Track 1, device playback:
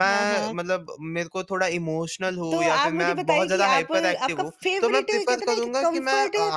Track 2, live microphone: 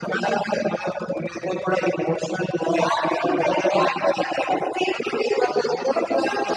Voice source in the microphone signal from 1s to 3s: echo only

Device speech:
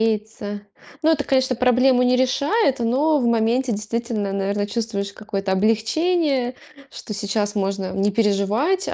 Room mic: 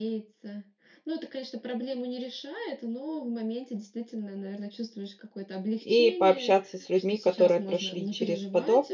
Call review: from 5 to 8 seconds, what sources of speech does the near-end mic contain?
both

